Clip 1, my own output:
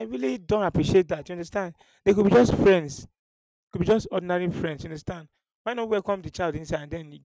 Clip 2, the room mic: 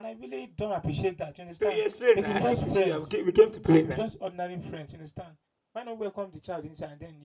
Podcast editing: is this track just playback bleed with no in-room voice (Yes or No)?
No